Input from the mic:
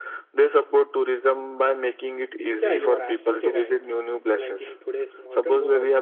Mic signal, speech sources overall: both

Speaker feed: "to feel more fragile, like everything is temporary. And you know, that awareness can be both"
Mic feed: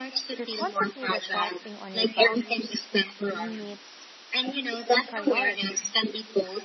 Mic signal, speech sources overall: both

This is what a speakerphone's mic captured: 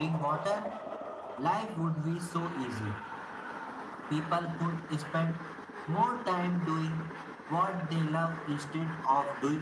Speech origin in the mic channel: echo only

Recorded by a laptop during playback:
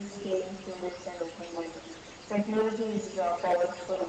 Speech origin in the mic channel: echo only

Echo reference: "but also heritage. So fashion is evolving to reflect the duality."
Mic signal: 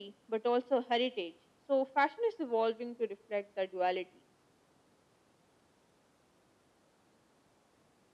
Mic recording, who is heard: echo only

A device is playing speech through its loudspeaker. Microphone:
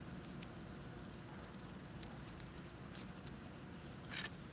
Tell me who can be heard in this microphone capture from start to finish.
neither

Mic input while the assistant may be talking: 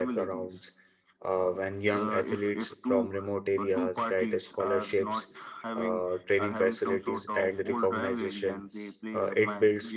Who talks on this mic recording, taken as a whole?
both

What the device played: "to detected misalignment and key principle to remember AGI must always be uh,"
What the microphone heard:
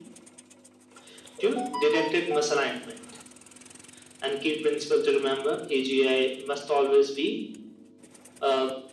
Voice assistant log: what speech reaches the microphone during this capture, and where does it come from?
echo only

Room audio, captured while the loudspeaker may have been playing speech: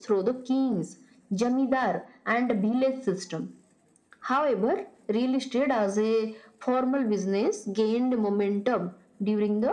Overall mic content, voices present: echo only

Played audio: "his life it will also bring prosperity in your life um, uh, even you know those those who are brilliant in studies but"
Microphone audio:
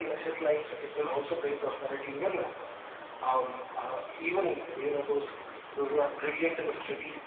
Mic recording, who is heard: echo only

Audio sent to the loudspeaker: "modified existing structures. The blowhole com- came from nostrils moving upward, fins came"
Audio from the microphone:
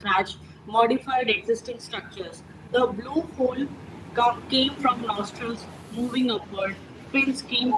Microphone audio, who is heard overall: echo only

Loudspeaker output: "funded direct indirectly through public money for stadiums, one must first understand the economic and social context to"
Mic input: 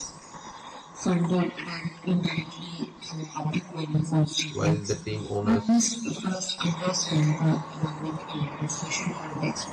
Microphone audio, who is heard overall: both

